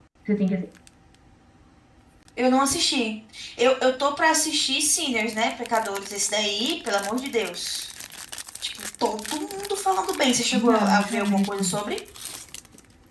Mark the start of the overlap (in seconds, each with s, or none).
10.5 s